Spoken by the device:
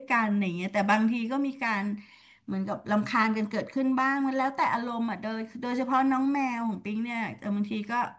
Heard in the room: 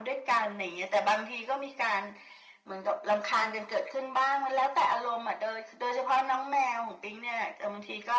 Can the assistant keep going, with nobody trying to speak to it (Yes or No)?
Yes